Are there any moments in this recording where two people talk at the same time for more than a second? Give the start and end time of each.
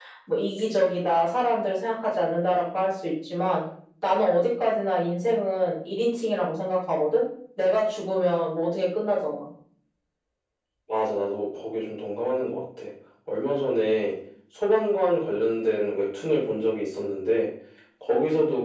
none

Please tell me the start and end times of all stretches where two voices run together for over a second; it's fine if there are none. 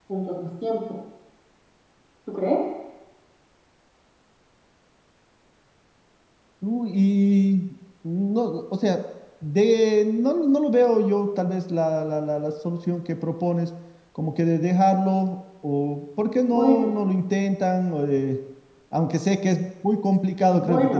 none

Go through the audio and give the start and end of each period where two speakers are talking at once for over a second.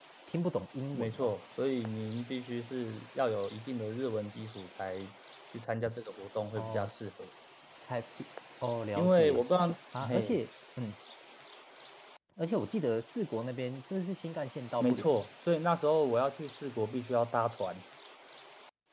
none

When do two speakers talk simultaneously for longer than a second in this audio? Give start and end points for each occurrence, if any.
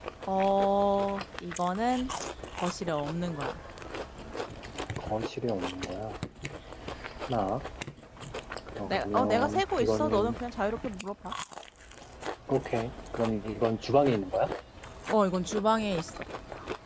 8.8-10.3

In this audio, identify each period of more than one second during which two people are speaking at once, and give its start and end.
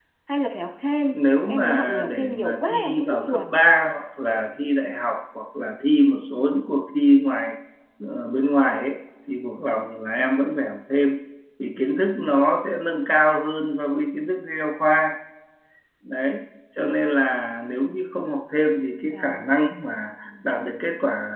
1.1-3.5

